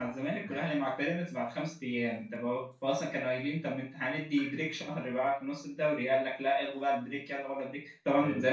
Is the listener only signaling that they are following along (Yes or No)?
Yes